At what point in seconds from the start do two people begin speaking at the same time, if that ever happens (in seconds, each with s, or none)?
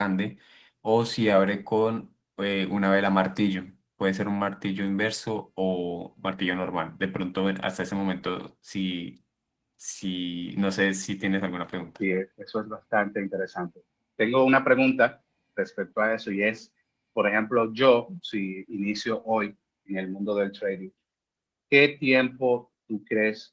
none